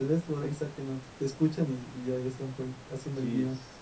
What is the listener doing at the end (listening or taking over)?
taking over